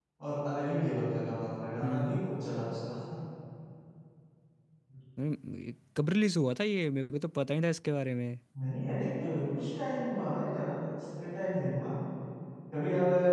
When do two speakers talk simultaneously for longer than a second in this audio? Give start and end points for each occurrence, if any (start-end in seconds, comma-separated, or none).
none